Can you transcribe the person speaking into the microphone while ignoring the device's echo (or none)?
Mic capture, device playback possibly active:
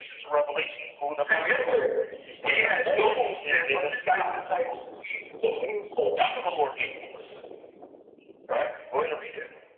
Remember, we had those that understood disciples and seasons of moon function.